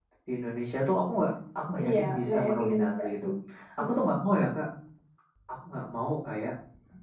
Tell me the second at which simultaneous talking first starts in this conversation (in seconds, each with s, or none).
1.8 s